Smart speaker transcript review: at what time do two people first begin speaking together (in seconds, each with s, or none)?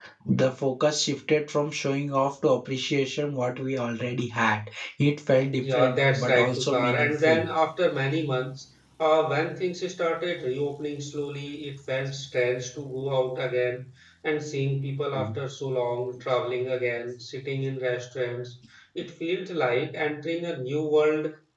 5.7 s